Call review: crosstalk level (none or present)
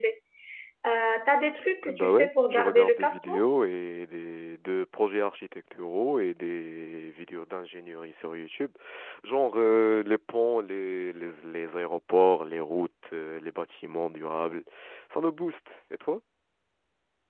present